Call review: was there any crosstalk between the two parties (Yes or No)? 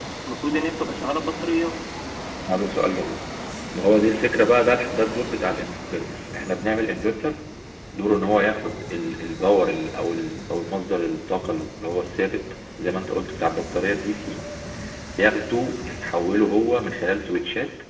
No